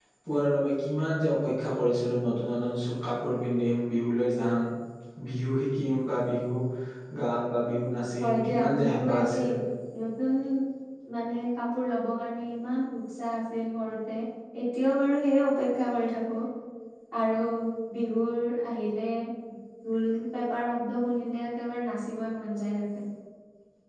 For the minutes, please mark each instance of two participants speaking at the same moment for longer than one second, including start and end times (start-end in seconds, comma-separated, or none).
8.2-9.5